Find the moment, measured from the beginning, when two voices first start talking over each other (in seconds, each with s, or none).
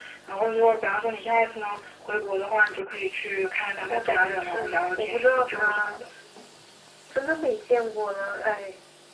3.9 s